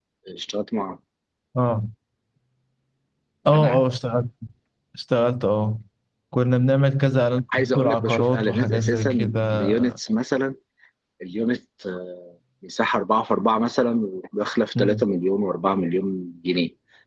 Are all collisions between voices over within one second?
No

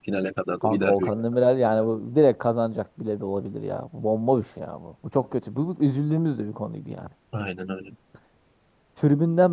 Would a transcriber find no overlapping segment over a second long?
Yes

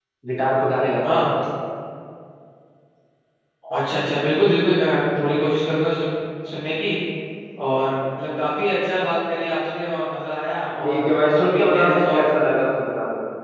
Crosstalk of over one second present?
Yes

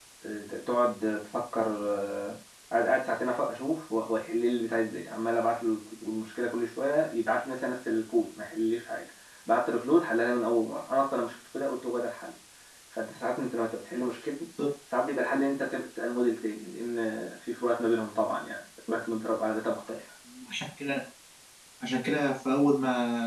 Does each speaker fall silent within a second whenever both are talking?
Yes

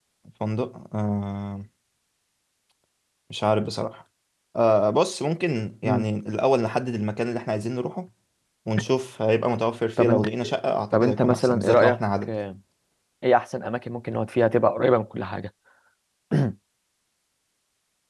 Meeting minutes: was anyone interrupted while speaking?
Yes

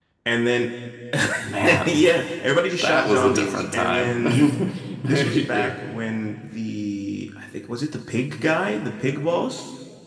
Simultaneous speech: Yes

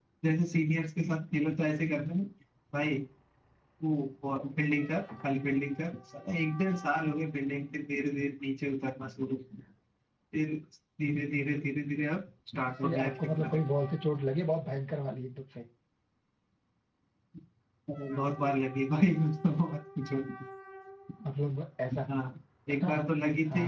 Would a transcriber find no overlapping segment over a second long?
No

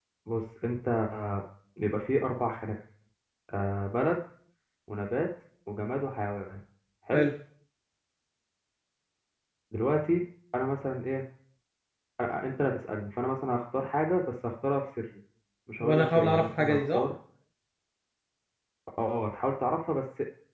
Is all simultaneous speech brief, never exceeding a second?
No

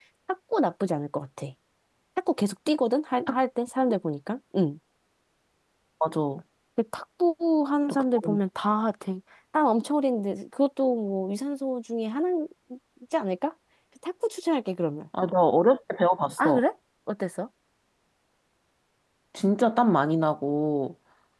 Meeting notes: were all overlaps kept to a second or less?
Yes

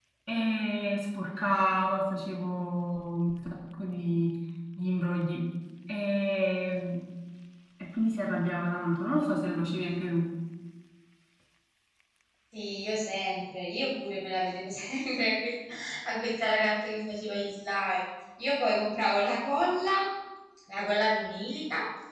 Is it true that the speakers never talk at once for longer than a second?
Yes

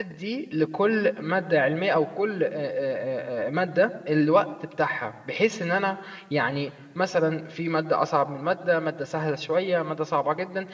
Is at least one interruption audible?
No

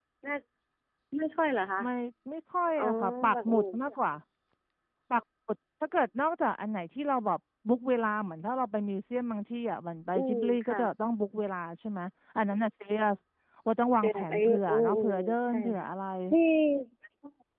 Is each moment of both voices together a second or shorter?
No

